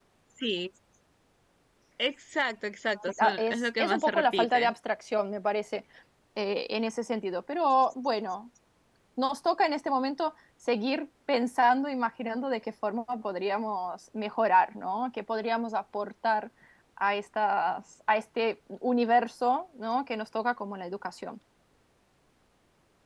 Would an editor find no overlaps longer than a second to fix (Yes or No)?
No